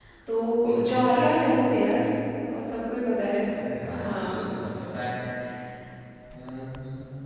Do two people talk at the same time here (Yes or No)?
Yes